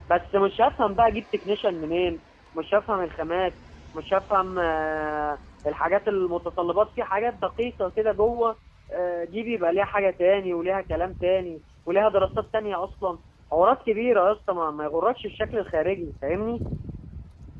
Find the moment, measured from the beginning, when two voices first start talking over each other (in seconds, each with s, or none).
none